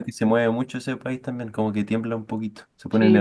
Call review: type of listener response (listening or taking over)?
taking over